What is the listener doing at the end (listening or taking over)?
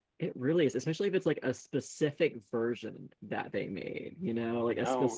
listening